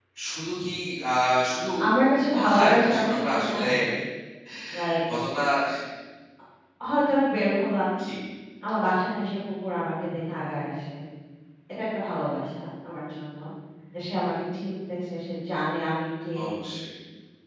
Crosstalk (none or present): present